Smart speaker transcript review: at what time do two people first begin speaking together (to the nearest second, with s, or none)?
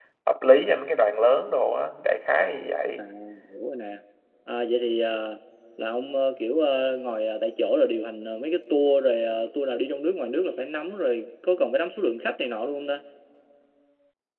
none